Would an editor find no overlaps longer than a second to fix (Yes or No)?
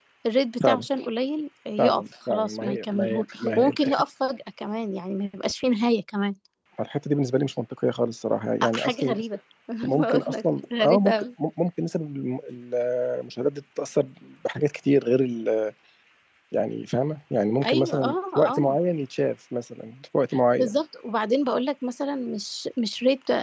No